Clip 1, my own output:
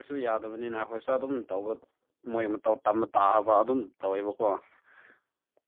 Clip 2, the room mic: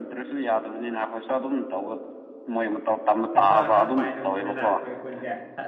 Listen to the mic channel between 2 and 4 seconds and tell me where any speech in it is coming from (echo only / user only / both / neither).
both